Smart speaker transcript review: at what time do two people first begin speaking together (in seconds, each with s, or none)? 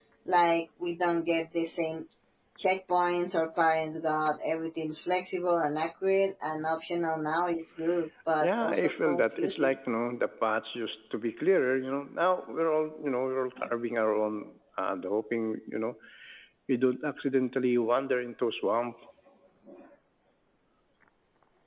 8.4 s